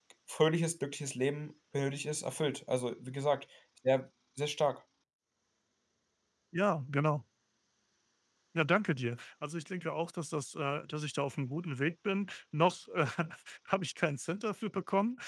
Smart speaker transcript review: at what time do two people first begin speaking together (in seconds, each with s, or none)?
none